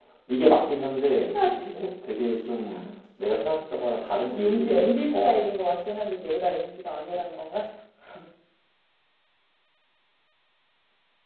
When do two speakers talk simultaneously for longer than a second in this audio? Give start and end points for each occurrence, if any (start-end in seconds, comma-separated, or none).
4.3-5.5